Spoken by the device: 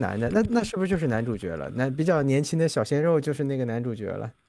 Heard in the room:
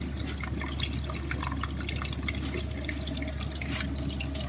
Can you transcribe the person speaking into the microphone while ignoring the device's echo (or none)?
none